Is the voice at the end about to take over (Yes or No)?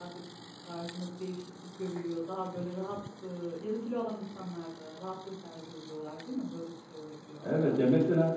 Yes